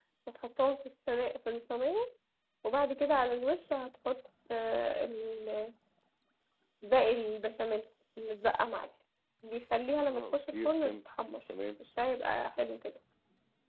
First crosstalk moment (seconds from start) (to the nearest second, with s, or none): 10 s